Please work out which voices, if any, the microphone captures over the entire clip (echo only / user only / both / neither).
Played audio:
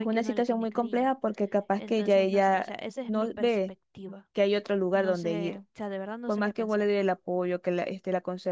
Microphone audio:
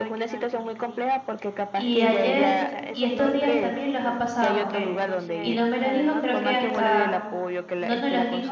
both